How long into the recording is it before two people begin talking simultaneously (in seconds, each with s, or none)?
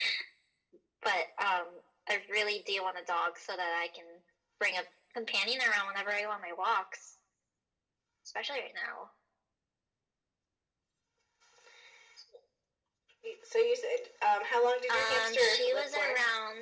14.9 s